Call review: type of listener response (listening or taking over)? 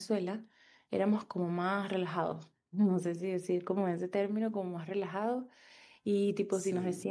listening